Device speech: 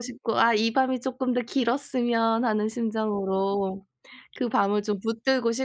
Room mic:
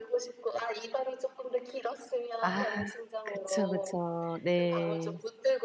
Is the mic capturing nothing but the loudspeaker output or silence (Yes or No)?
No